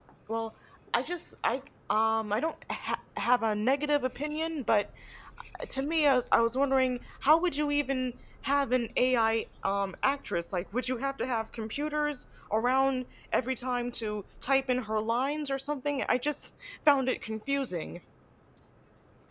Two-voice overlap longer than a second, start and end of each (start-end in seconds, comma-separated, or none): none